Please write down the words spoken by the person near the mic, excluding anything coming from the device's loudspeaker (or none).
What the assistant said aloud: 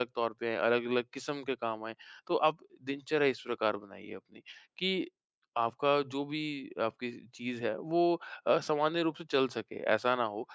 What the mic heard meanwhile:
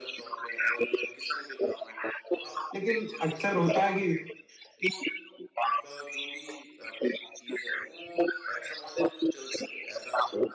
लेकिन अक्सर होता है कि